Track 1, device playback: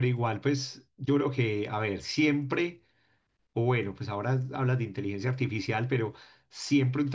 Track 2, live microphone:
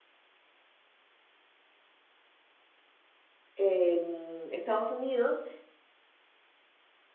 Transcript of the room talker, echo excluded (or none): en Estados Unidos,